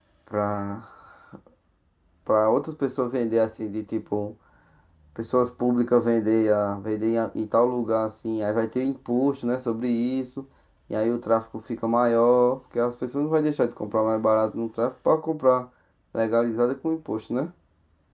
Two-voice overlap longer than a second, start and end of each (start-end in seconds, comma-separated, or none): none